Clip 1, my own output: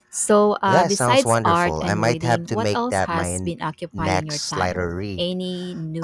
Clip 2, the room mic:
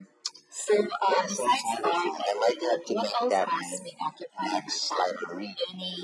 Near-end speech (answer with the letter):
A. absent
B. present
A